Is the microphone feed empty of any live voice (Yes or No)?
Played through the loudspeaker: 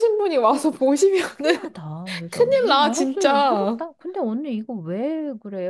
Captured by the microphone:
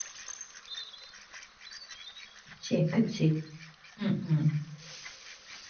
No